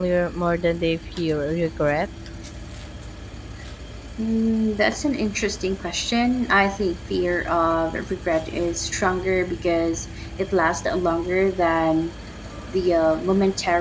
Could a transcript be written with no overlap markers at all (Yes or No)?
Yes